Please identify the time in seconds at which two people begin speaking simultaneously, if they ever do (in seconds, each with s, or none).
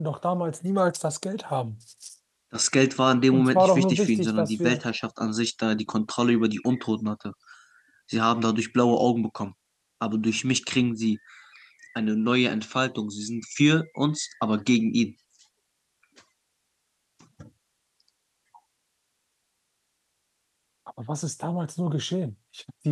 3.3 s